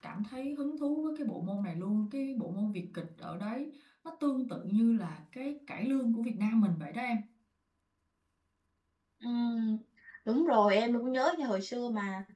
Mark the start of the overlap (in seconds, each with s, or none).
none